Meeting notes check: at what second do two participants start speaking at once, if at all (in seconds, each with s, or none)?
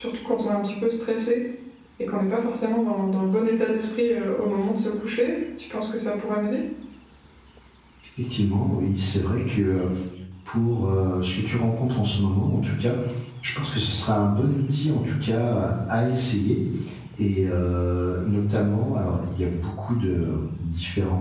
none